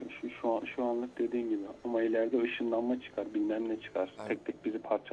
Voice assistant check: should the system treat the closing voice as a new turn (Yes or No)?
No